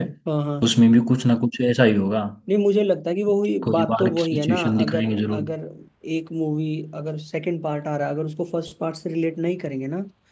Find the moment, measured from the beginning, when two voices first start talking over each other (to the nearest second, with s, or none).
4 s